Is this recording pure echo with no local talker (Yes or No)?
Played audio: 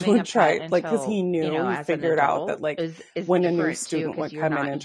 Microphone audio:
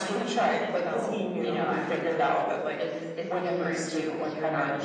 Yes